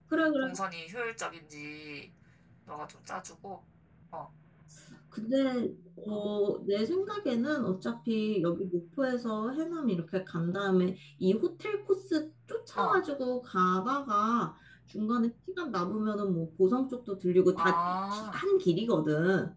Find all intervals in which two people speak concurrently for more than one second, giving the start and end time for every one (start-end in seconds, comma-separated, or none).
none